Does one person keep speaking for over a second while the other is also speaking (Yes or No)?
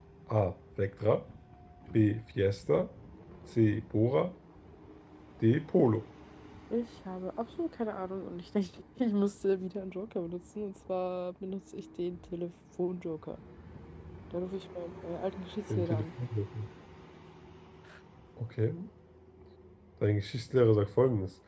No